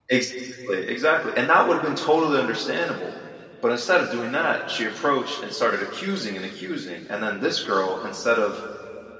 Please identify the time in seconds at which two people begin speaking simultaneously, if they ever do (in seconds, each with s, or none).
none